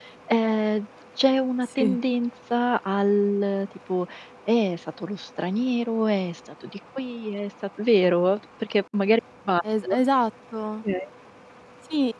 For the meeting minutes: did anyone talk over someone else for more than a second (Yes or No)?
No